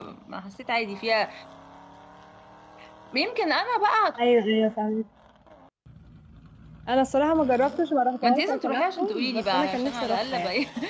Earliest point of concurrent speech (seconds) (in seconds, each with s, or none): 8.2 s